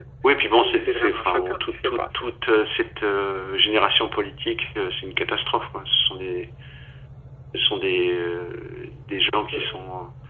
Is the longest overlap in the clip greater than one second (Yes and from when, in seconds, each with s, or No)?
Yes, from 0.5 s